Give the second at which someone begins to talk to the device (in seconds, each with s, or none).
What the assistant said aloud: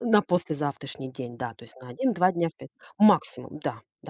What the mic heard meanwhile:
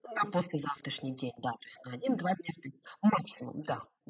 none